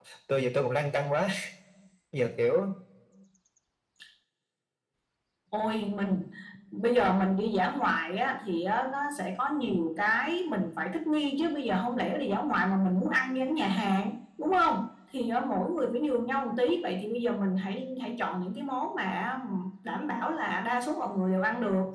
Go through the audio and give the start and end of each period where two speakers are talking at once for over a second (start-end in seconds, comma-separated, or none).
none